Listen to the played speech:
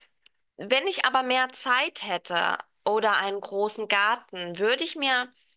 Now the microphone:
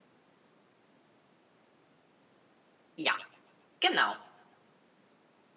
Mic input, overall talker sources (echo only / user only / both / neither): user only